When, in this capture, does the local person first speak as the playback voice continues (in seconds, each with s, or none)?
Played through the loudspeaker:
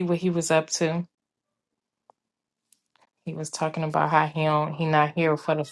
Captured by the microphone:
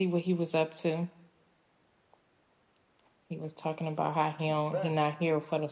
4.3 s